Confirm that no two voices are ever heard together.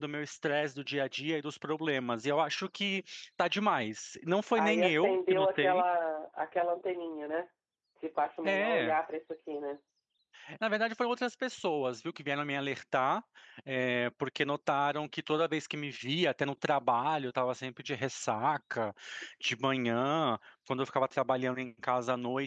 No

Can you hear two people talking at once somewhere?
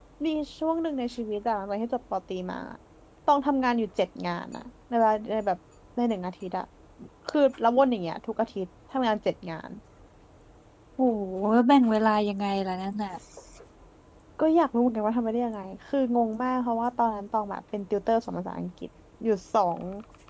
No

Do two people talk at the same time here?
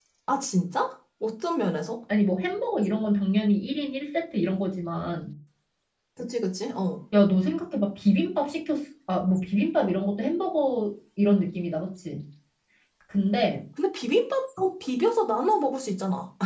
No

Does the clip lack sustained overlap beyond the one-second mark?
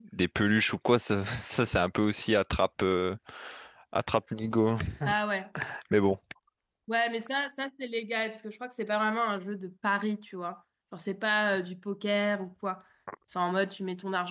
Yes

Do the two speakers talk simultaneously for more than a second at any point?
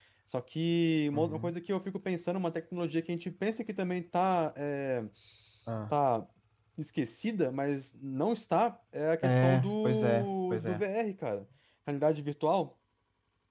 Yes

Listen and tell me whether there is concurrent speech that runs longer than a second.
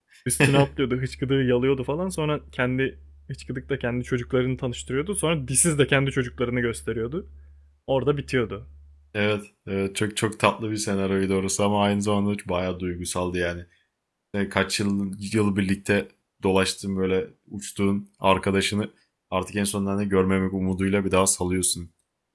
No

